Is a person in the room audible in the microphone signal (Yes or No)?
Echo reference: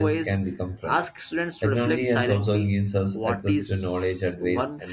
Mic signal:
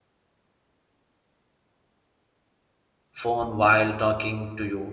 Yes